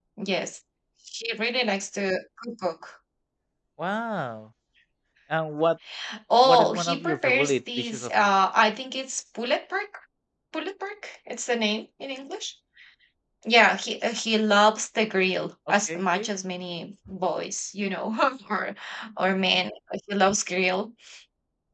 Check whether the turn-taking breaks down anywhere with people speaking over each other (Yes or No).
Yes